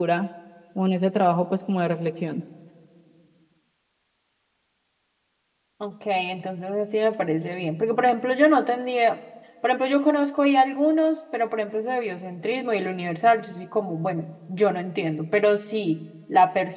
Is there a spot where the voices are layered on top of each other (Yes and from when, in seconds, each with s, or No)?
No